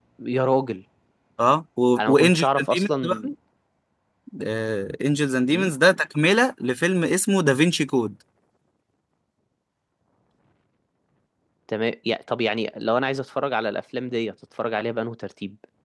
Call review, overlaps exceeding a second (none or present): present